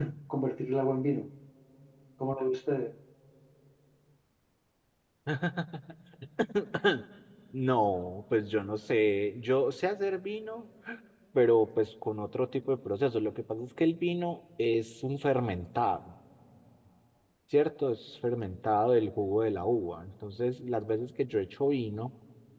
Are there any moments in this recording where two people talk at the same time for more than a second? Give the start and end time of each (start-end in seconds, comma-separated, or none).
none